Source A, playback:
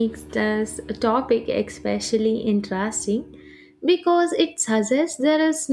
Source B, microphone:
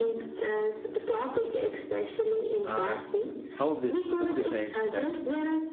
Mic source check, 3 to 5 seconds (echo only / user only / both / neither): both